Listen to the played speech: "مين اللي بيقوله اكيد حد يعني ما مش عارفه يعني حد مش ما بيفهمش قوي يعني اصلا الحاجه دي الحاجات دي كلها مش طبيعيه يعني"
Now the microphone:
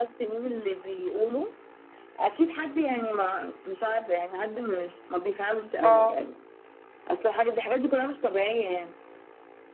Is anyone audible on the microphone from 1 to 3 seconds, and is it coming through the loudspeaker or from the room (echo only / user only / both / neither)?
echo only